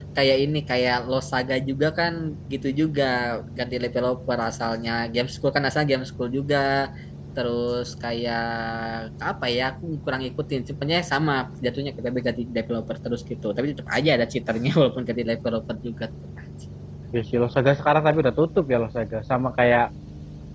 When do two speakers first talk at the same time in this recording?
none

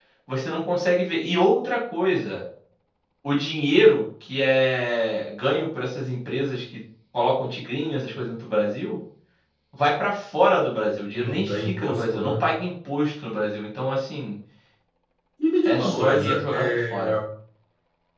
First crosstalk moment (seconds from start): 11.1 s

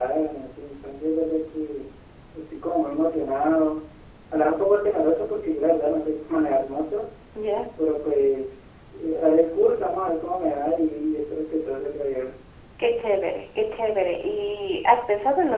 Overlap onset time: none

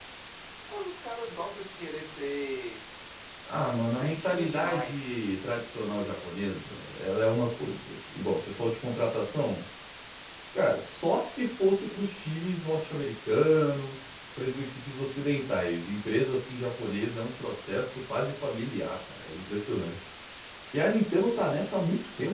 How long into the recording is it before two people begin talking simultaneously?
3.9 s

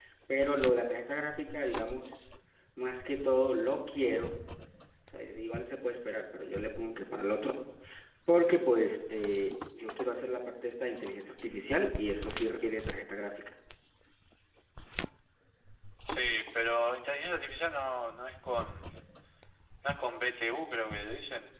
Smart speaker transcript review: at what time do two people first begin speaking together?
none

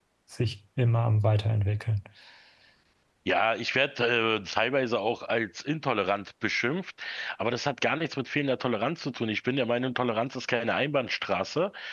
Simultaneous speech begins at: none

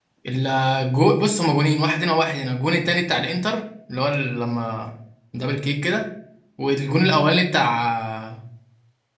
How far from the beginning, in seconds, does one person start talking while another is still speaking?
none

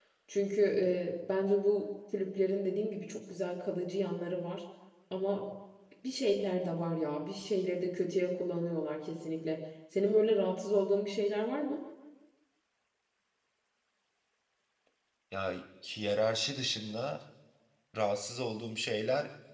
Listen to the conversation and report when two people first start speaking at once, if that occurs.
none

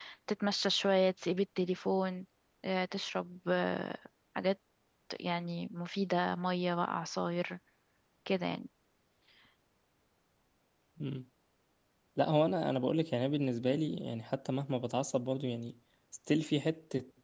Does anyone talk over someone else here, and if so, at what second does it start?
none

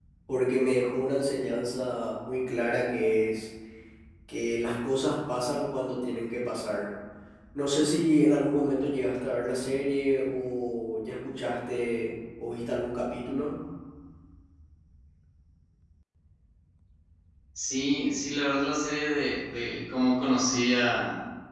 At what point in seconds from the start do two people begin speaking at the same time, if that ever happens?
none

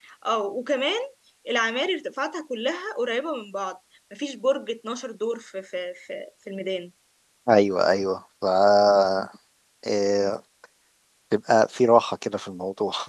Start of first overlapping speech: none

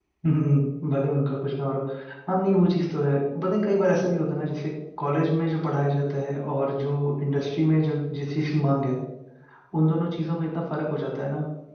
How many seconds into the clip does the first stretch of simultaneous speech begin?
none

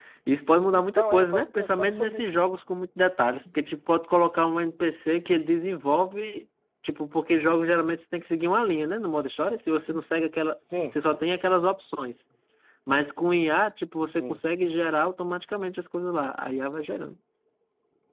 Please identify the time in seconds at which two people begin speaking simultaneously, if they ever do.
0.7 s

